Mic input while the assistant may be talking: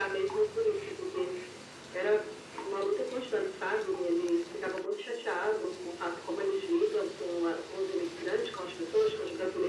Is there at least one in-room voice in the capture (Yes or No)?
No